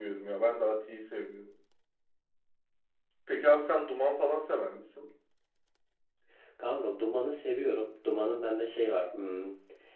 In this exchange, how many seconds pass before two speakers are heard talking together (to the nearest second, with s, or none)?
none